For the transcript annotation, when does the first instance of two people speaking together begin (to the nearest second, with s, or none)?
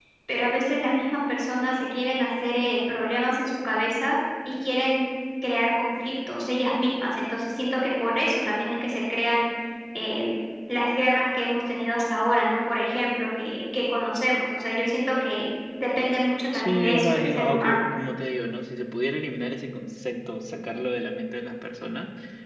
17 s